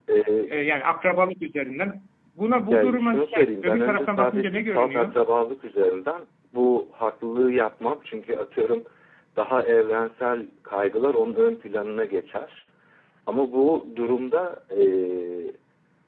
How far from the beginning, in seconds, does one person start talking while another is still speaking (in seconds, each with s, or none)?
2.7 s